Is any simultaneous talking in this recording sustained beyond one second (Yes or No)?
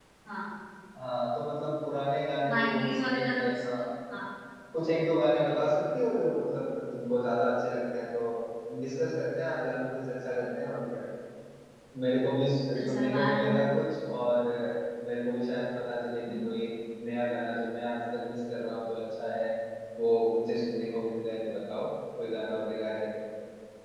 Yes